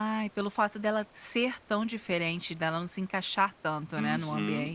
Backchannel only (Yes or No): No